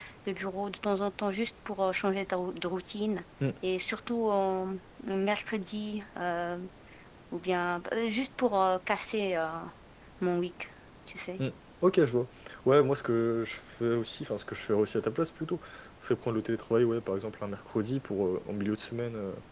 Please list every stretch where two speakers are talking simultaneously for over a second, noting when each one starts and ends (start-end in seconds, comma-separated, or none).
none